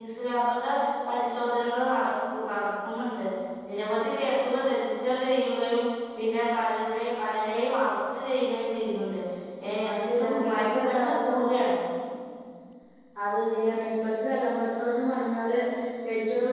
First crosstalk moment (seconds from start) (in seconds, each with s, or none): 9.9 s